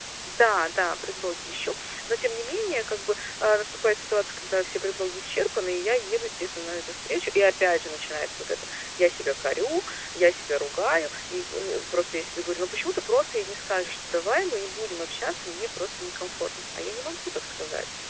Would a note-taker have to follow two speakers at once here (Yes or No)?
No